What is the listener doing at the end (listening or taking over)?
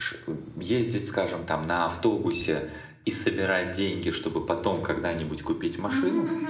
listening